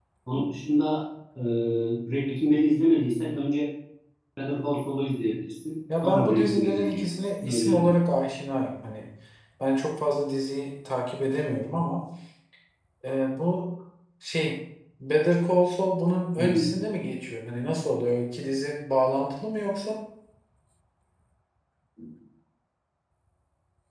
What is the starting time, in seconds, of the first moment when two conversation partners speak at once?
6.0 s

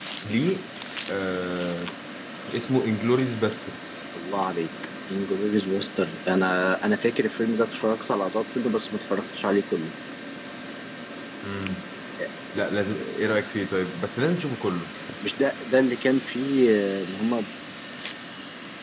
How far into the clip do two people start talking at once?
none

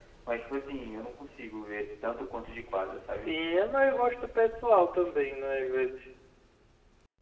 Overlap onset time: none

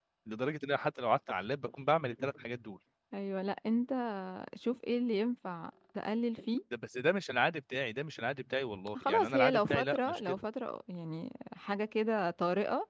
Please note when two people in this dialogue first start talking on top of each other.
9.0 s

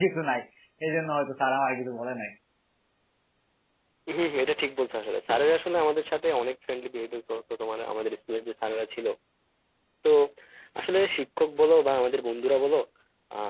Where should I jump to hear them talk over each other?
none

